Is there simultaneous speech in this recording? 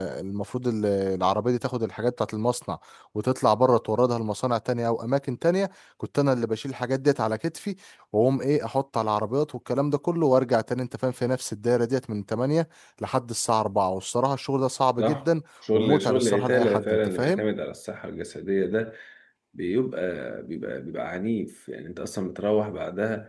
Yes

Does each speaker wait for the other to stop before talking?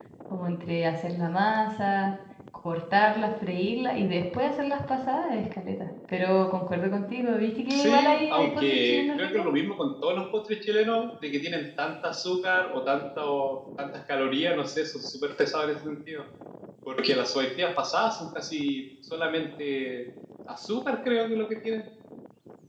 No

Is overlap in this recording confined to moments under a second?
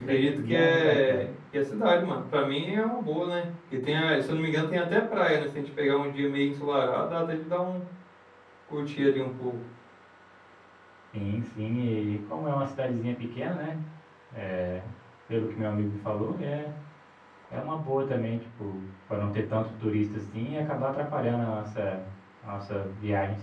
No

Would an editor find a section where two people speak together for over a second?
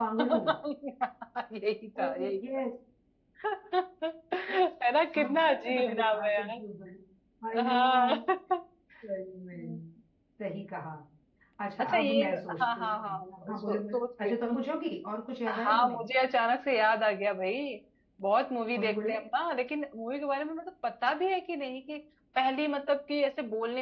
Yes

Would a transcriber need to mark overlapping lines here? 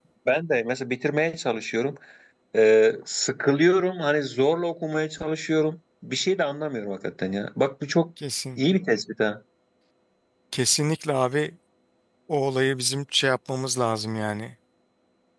No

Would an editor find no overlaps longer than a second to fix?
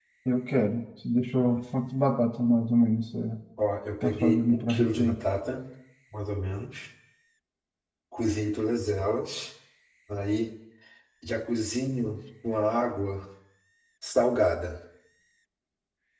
No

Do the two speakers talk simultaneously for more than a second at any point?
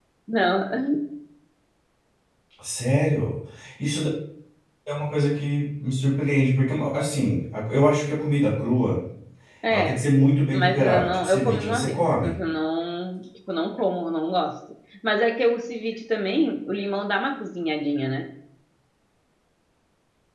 Yes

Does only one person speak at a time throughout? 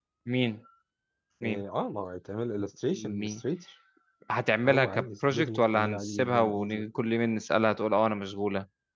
No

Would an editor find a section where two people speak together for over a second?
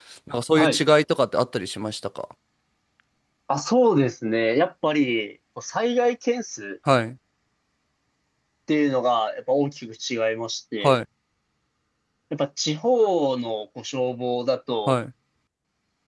No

